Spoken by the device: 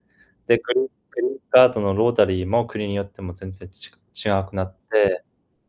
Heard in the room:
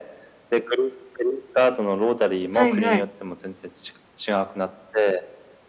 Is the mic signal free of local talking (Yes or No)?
No